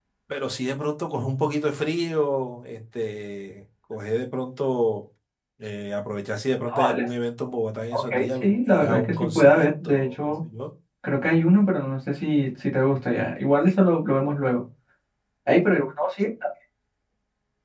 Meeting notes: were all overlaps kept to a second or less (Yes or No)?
No